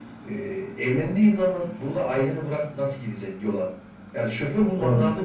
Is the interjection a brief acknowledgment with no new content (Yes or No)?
Yes